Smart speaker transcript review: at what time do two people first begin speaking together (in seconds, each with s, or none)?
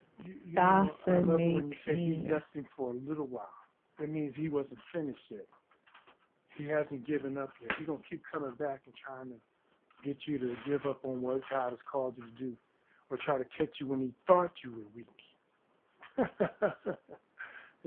0.6 s